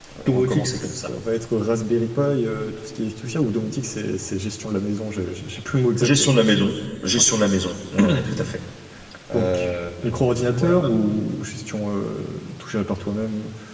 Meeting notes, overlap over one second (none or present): present